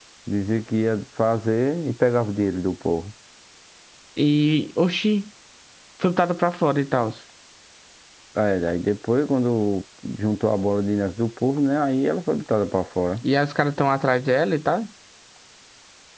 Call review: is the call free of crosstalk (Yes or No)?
Yes